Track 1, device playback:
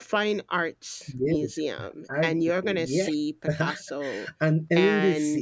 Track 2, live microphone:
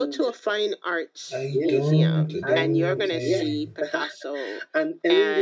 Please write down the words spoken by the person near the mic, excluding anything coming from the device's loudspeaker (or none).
I don't don't uh,